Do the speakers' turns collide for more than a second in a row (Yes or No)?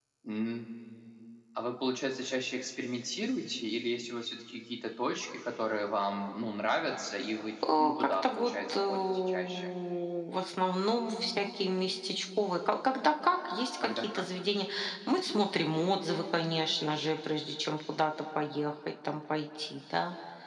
Yes